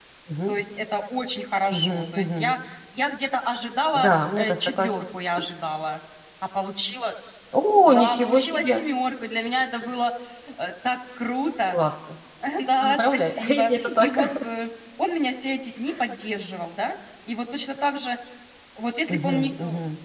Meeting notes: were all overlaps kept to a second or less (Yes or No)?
No